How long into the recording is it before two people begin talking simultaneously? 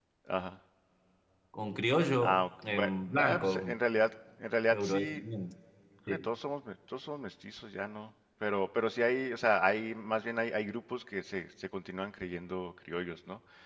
2 s

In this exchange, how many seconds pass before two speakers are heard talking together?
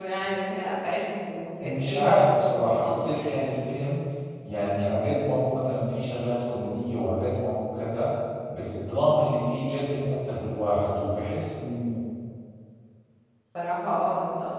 2 s

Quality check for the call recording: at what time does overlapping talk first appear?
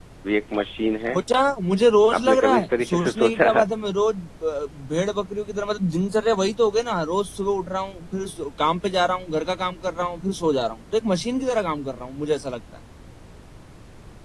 2 s

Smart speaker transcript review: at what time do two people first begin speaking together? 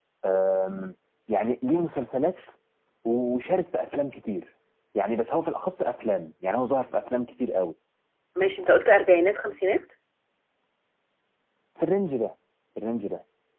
none

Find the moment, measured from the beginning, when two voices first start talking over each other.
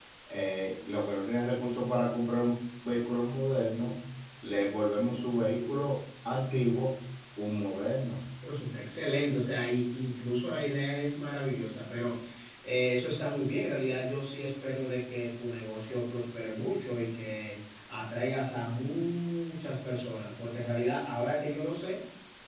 none

